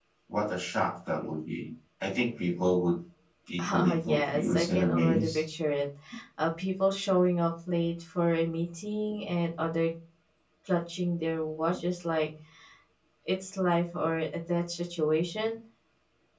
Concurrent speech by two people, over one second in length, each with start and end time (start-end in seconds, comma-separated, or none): 3.6-5.4